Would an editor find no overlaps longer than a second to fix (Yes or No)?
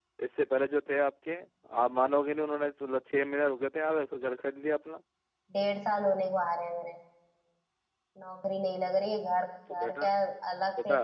Yes